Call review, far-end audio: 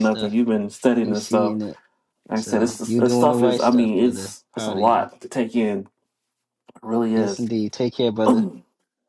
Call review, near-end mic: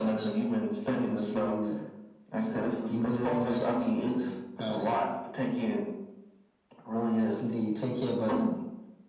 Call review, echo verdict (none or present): present